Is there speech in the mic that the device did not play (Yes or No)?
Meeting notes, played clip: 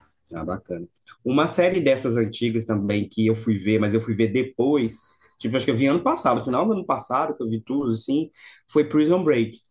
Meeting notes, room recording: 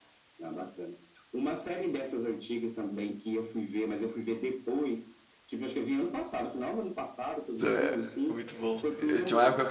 Yes